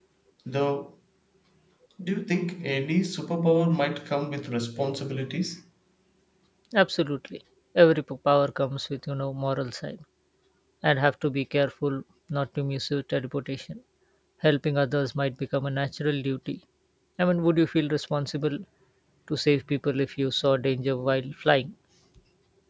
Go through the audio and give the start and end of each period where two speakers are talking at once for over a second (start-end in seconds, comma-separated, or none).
none